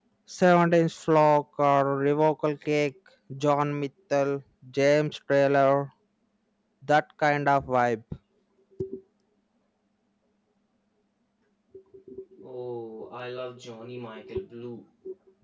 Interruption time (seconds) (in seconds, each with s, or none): none